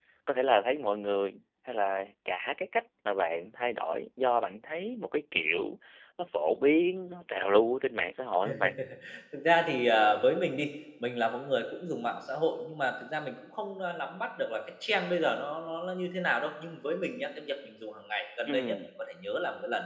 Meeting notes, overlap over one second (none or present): none